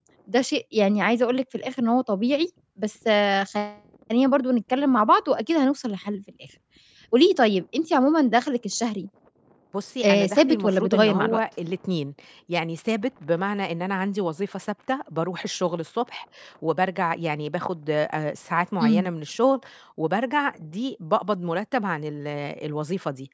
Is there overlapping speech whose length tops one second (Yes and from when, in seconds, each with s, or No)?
Yes, from 10.0 s